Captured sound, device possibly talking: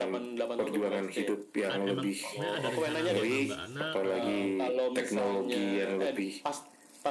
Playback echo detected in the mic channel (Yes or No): Yes